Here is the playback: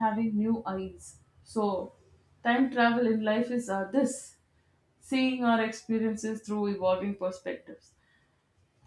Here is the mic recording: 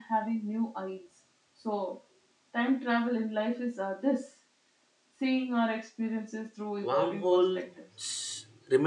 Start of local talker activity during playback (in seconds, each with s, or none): 6.8 s